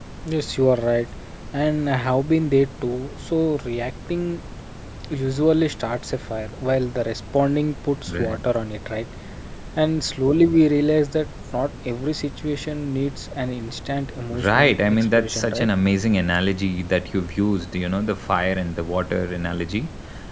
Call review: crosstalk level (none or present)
present